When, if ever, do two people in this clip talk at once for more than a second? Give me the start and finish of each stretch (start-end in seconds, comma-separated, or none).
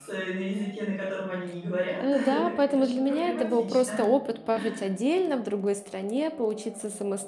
2.0-4.0